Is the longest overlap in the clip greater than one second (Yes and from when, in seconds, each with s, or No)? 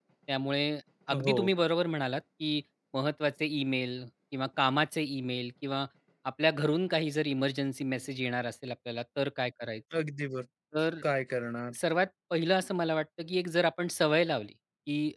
No